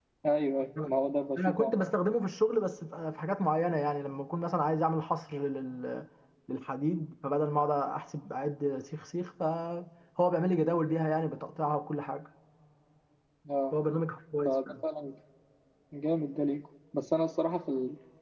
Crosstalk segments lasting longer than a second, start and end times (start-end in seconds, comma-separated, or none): none